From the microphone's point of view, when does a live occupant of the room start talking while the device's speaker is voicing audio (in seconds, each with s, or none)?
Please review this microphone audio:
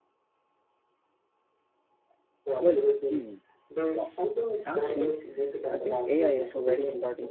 2.6 s